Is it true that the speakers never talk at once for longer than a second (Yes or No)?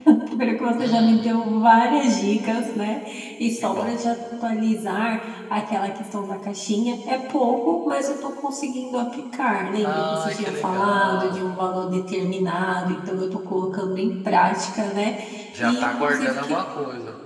No